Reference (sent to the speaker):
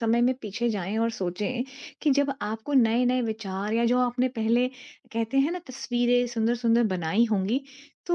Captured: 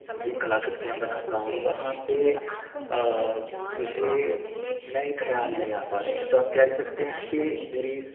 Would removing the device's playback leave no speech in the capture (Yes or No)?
No